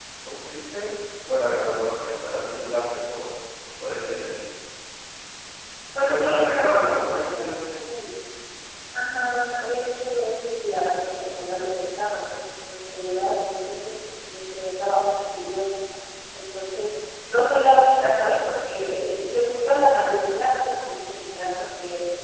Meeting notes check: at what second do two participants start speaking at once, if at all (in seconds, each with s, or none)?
6.0 s